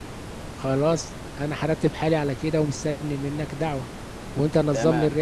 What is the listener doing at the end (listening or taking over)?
listening